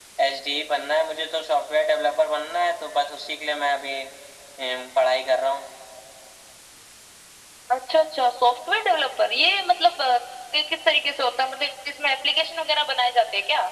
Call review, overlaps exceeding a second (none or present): none